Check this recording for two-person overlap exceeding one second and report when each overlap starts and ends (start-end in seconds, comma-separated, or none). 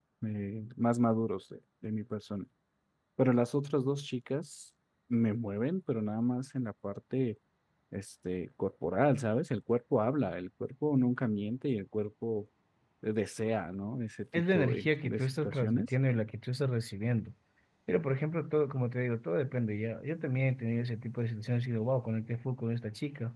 14.5-15.9